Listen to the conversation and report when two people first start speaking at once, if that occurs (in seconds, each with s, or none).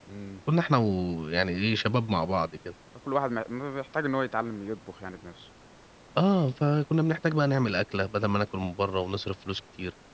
none